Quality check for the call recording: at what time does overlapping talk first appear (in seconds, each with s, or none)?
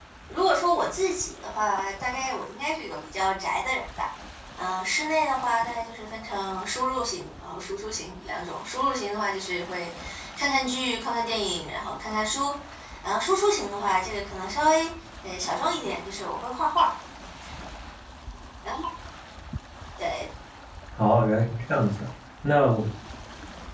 none